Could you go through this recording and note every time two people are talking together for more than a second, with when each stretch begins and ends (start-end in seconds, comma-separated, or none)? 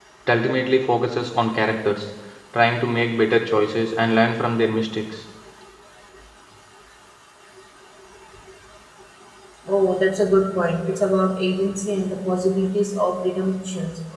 none